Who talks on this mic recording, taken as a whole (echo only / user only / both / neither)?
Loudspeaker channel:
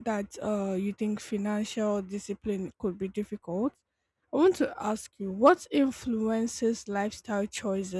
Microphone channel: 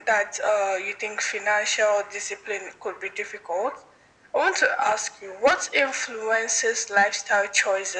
echo only